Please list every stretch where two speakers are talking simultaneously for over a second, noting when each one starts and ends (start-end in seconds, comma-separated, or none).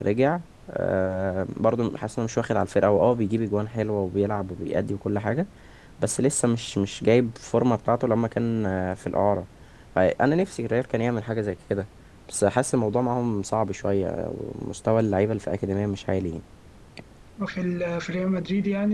none